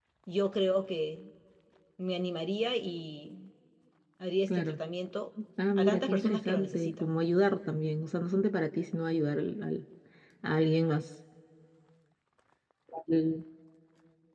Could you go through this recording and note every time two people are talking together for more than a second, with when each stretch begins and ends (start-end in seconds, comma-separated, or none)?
5.8-7.2